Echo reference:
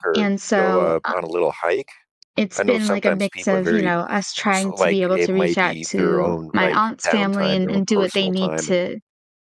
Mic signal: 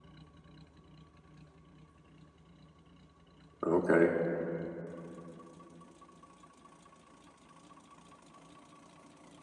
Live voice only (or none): okay."